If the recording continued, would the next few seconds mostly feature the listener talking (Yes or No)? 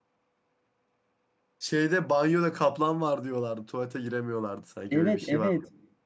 Yes